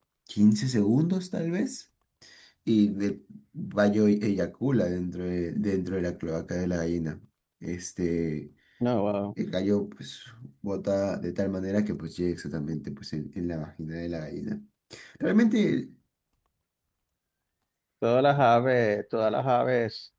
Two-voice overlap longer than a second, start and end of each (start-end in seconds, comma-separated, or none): none